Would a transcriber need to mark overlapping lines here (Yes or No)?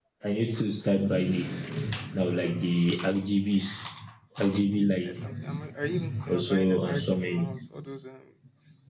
Yes